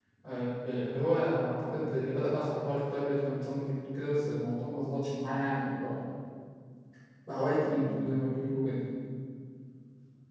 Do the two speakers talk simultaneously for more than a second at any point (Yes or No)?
No